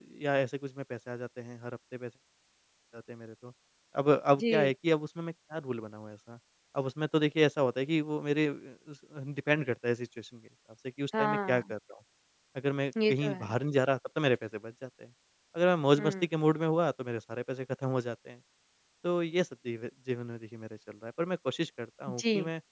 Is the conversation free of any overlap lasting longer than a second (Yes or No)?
Yes